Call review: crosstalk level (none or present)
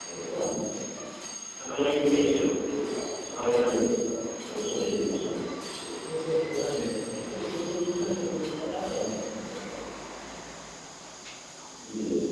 none